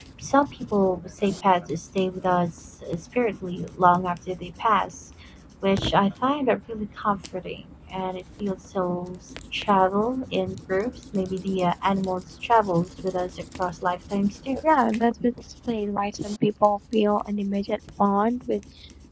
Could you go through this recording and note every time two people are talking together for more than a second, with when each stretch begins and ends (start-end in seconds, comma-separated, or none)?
none